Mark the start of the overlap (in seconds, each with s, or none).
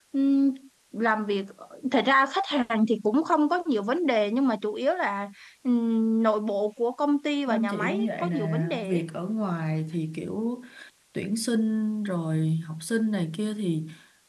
7.5 s